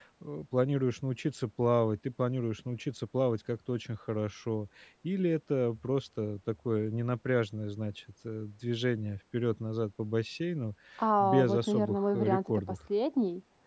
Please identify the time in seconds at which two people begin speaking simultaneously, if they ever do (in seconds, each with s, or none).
11.2 s